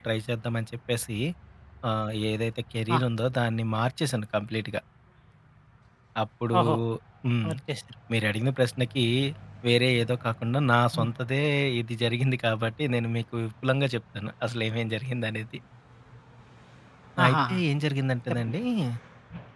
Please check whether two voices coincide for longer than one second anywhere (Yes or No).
No